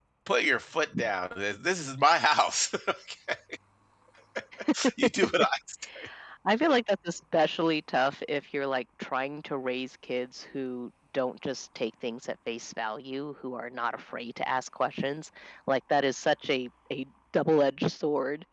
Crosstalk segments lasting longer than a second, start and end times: none

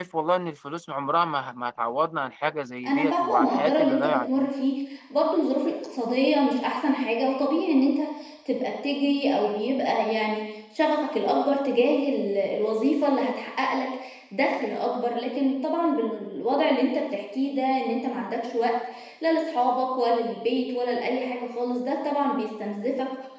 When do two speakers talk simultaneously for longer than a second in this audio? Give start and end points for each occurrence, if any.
2.9-4.5

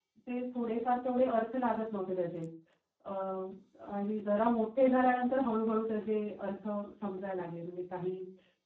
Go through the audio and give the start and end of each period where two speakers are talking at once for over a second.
none

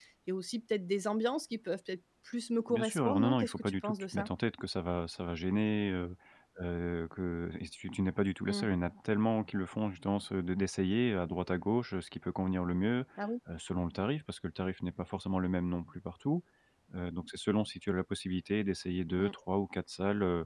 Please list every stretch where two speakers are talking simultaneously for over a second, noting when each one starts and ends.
2.7-4.3

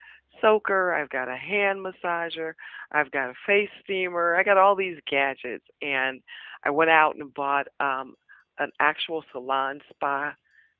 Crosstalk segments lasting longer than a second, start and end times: none

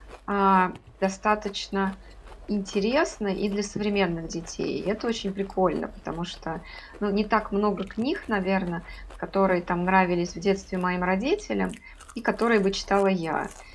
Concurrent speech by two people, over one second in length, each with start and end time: none

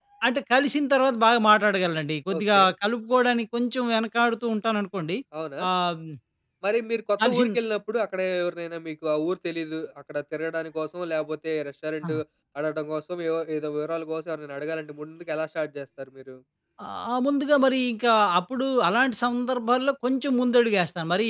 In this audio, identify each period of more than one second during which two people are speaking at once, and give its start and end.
none

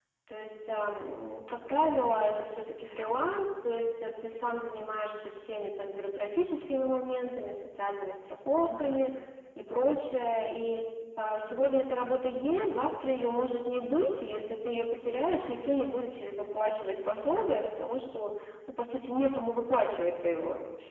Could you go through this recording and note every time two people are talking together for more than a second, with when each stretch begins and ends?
none

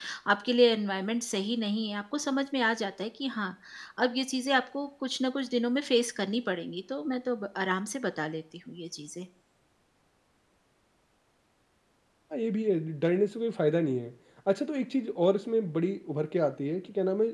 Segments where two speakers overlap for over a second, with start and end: none

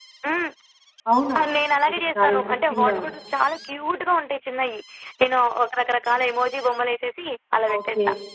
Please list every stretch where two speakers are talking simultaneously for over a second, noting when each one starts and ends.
1.9-3.1

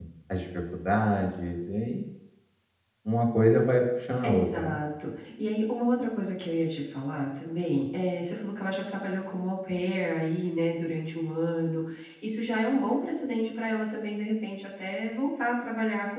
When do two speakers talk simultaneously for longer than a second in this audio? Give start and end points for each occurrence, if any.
none

